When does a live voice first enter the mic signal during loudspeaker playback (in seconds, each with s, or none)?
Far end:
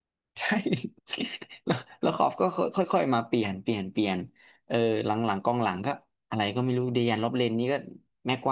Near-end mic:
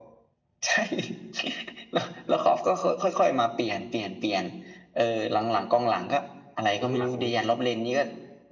6.7 s